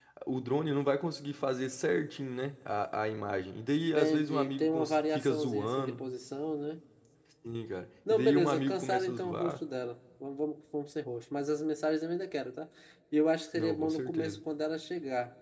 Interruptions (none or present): present